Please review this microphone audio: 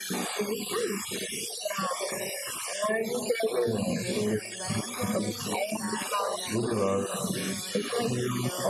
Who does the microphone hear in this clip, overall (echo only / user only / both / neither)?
both